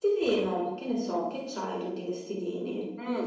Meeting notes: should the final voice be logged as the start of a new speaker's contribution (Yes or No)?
Yes